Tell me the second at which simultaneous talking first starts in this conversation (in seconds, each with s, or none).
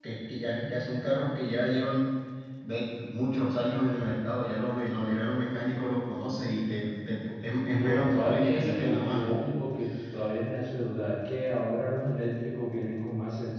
7.7 s